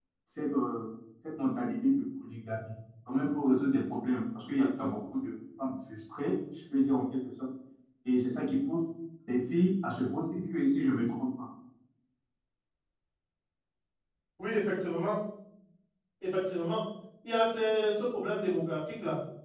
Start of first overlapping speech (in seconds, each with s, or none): none